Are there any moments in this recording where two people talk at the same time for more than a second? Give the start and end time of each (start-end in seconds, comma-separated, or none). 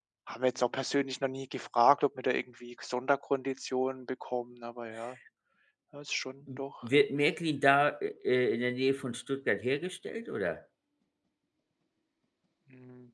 none